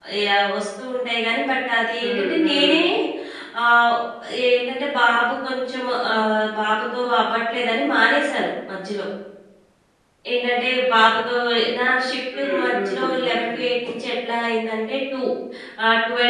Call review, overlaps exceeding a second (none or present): present